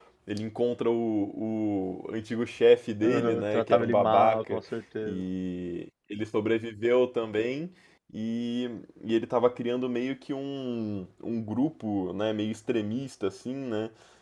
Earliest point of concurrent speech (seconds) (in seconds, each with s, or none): 3.0 s